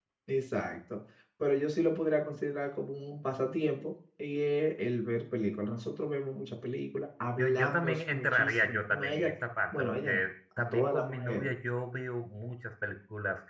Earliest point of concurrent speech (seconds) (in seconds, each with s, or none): 7.4 s